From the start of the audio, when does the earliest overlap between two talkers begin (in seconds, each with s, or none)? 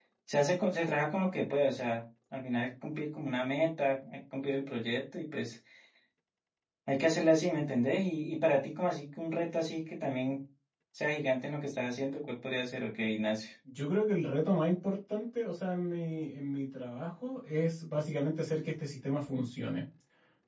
none